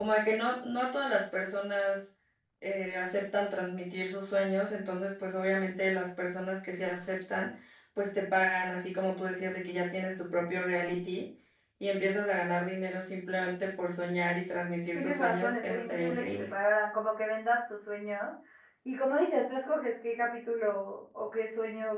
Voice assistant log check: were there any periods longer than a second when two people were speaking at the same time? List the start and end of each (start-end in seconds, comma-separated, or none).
14.9-16.5